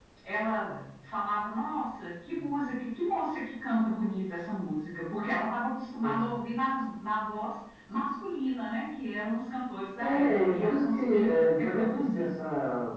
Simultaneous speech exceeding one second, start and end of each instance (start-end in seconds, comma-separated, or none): 10.0-12.3